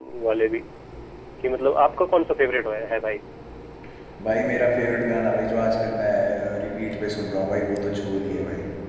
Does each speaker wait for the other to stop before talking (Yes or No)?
Yes